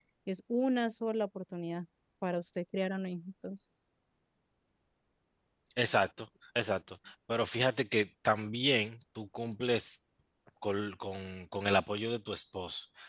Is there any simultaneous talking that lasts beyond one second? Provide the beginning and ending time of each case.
none

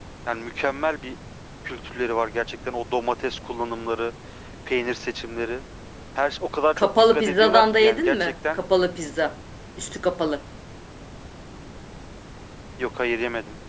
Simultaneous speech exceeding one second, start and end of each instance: 6.8-8.6

